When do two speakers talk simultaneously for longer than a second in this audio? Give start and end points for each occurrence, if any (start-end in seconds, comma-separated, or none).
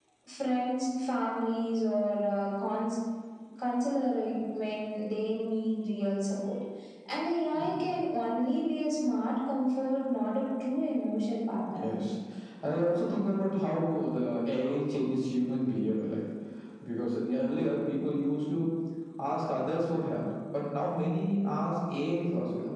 none